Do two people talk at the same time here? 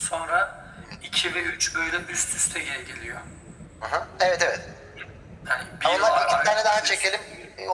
Yes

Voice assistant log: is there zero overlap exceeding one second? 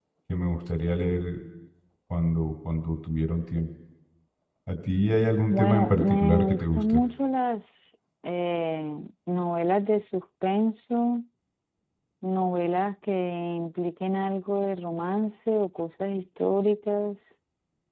No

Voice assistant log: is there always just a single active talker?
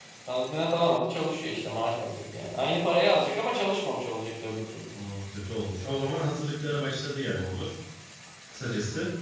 Yes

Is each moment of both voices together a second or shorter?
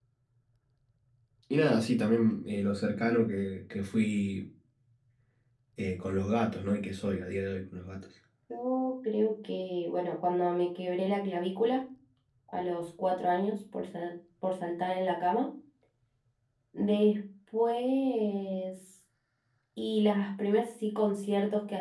Yes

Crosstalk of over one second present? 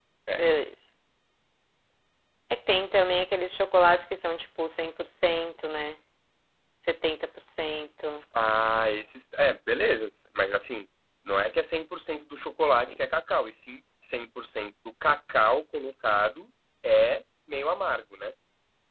No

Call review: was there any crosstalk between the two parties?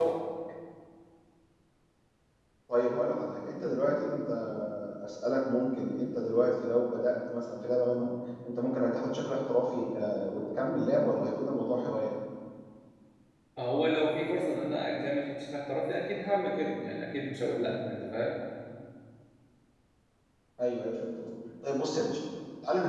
No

